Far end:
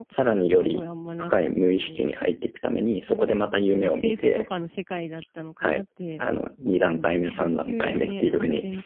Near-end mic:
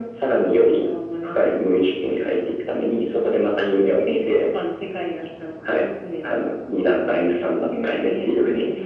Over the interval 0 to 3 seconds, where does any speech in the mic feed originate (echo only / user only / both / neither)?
echo only